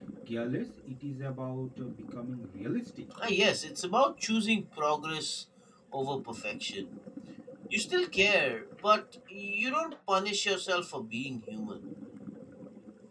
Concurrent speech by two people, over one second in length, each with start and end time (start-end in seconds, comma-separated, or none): none